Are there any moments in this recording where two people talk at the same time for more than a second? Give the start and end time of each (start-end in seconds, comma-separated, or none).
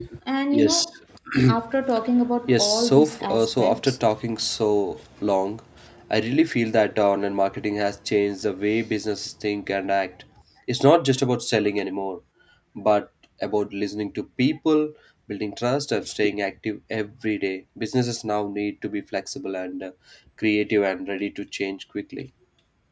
2.5-4.0